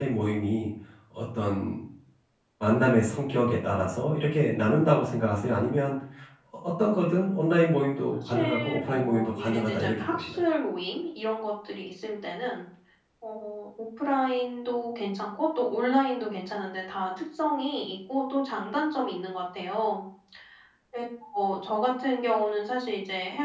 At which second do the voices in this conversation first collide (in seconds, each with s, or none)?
8.2 s